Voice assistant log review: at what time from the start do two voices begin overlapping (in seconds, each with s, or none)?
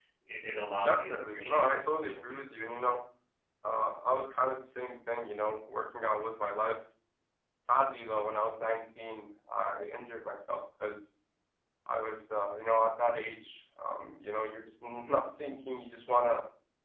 0.8 s